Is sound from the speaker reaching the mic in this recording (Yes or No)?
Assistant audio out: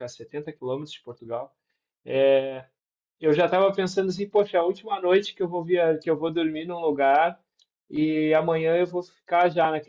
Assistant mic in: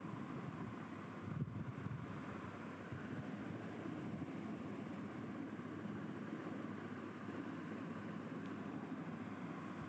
No